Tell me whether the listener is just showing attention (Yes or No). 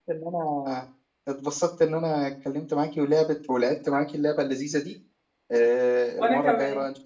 Yes